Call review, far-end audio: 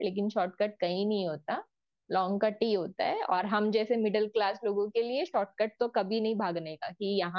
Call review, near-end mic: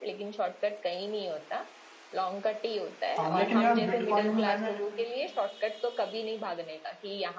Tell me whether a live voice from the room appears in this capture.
Yes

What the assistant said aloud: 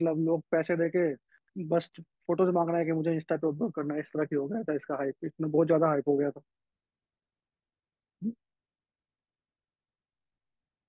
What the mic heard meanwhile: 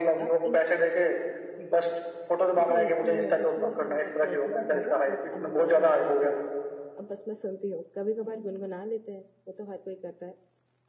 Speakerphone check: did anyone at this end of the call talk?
Yes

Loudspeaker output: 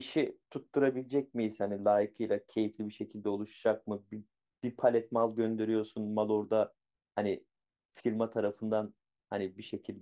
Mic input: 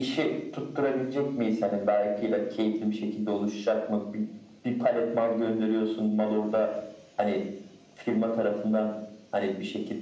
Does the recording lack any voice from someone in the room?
Yes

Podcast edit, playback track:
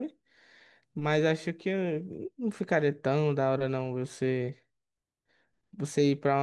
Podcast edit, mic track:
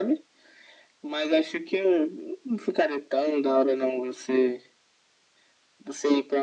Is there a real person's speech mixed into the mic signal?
No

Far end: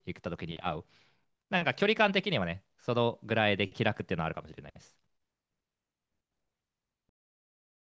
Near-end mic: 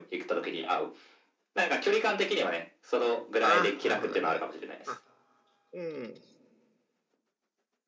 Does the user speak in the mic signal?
Yes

